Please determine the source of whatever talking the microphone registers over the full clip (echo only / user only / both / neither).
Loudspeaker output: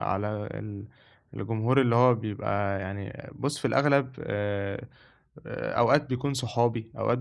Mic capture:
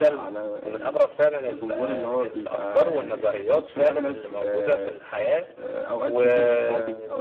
both